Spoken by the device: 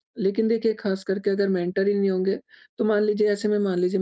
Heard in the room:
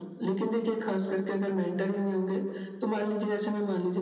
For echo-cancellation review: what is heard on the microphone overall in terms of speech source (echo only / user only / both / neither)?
echo only